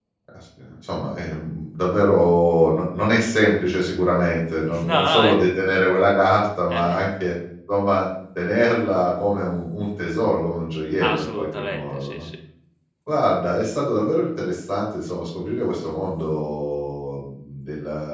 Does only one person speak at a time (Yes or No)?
No